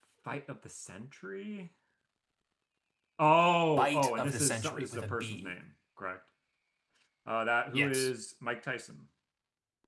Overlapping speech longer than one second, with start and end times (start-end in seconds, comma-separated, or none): 3.8-5.5